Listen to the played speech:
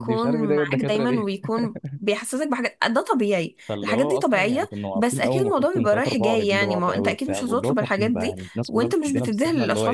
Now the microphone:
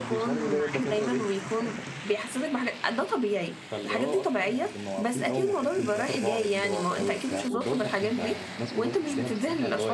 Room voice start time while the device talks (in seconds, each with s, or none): none